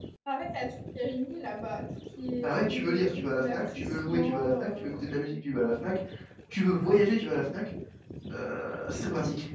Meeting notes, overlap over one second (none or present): present